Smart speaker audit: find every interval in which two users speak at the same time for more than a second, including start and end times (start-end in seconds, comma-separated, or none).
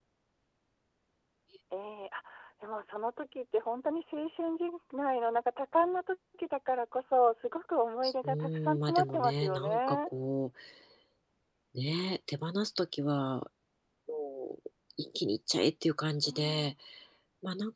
8.0-10.1